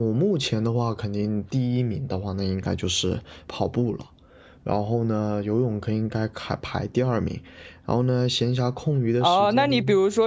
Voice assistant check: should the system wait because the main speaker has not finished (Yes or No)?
No